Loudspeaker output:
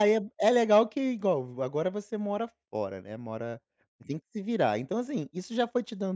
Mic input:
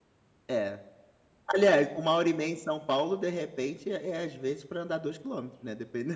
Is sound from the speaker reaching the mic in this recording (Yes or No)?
No